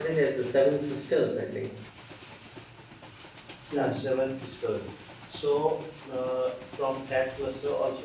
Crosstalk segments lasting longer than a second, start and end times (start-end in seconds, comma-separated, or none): none